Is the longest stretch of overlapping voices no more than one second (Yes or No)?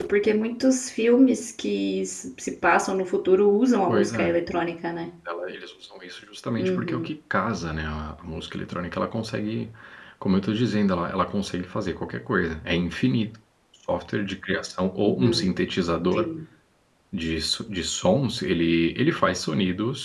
Yes